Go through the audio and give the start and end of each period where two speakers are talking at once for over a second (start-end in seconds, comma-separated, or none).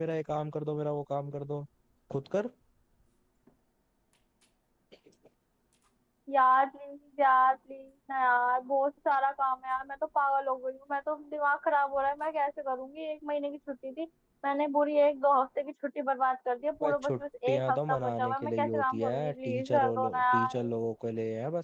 16.8-20.6